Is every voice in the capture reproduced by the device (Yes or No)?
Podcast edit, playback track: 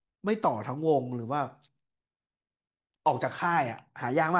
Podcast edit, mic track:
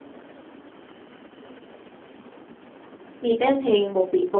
No